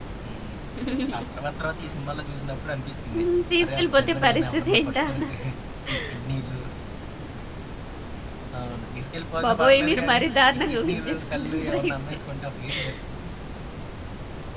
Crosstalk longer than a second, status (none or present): present